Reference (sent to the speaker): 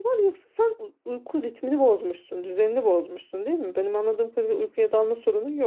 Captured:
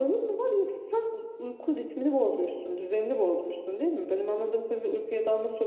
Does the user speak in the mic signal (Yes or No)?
No